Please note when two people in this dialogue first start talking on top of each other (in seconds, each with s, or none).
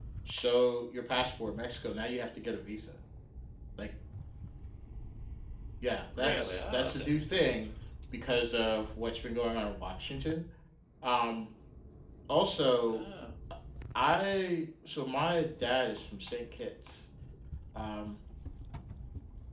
6.2 s